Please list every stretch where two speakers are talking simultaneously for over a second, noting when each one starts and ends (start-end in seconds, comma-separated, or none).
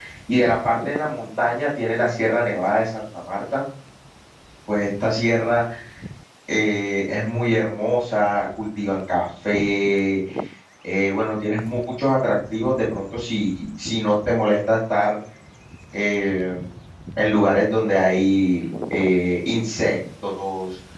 none